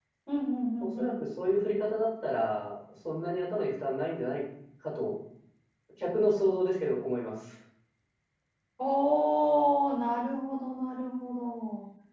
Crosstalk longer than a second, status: none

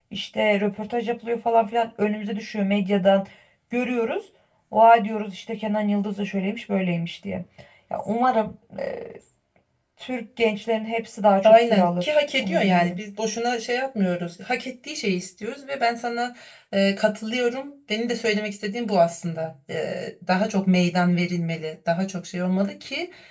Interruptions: present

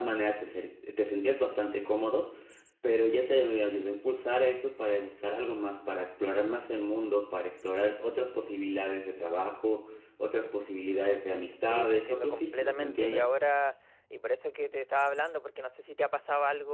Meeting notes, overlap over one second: present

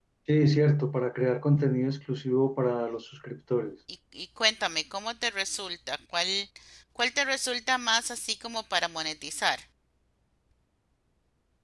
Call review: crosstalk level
none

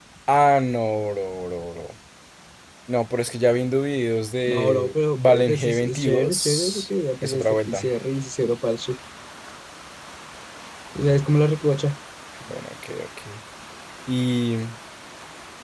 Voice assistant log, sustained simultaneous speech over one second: present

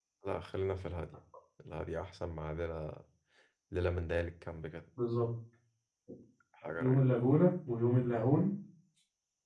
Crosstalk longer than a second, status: none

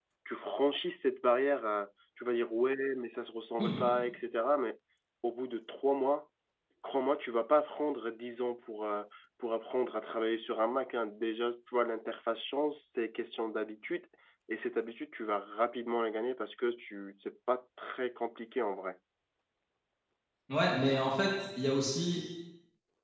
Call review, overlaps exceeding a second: none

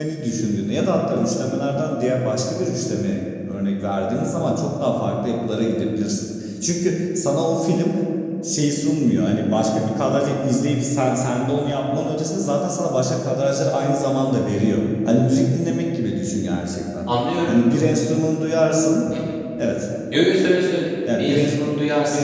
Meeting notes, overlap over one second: none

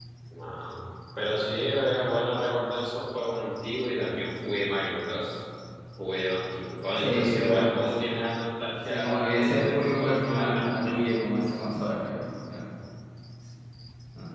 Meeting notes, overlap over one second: present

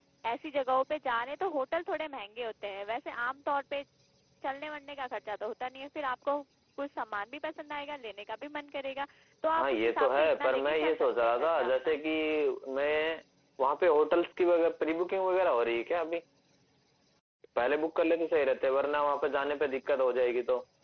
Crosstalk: present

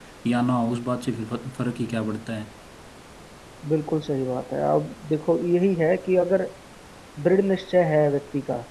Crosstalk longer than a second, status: none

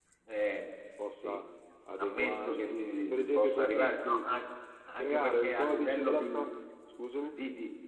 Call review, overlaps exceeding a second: present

